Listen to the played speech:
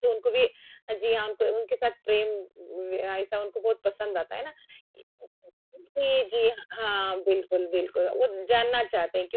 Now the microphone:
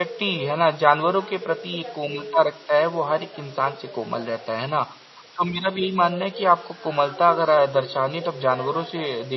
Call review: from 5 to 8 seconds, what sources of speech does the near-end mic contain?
both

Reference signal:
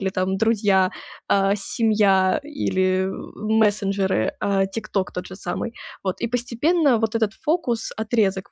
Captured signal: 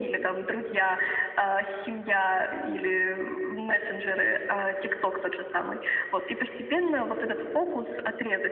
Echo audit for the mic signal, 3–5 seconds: echo only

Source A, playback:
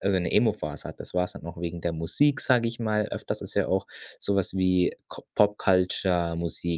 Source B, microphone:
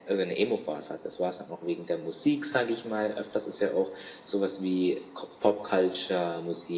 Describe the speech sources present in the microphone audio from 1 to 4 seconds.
echo only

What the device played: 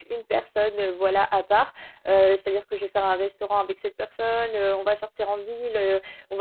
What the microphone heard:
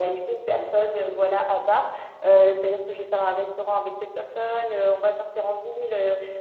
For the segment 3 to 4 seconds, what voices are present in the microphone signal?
echo only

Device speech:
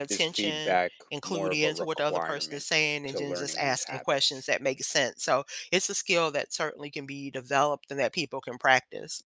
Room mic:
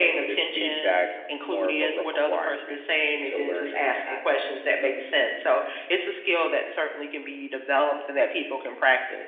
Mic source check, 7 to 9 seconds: echo only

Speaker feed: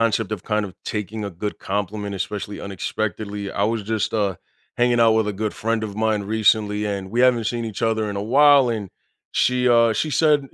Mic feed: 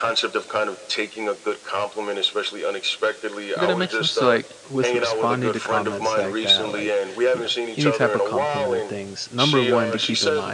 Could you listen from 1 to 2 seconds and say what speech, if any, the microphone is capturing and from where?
echo only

